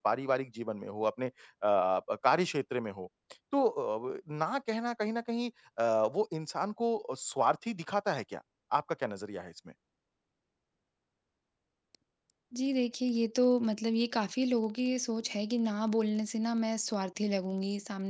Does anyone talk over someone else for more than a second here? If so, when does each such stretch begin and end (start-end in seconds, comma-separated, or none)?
none